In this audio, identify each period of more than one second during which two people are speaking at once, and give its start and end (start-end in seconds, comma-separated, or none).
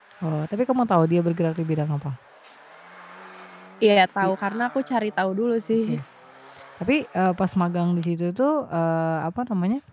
none